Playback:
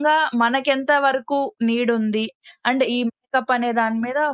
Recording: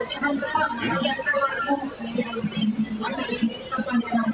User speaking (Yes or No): Yes